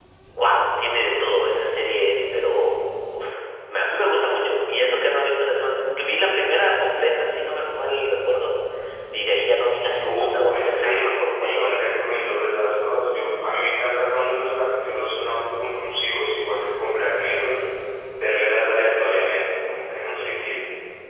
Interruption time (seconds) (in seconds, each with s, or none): 10.0 s